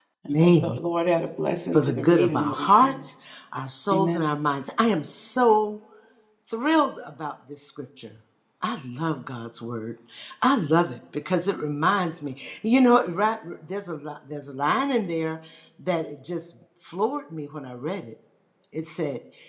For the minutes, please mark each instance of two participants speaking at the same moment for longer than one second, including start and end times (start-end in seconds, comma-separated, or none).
1.7-3.0